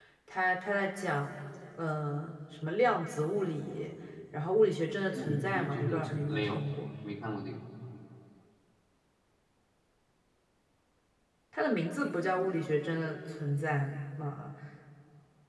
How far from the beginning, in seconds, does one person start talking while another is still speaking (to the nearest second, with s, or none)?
5 s